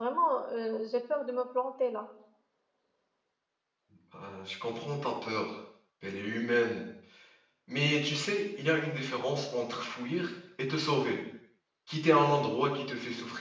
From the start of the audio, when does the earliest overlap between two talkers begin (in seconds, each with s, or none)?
none